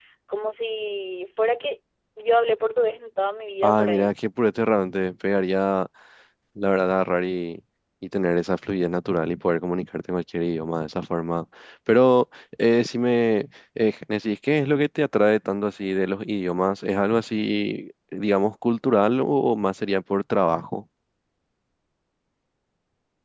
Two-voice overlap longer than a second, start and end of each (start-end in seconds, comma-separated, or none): none